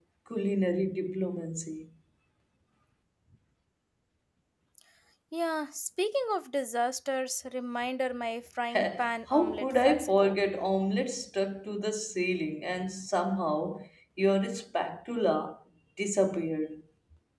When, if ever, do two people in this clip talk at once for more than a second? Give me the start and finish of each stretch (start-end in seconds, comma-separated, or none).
8.7-10.4